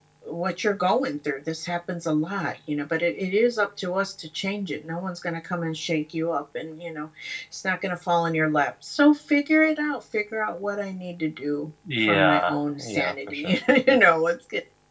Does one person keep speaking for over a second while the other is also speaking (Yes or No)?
Yes